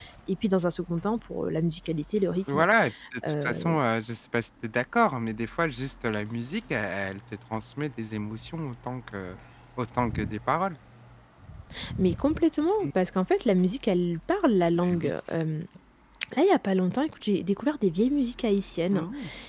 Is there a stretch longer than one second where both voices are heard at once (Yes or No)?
No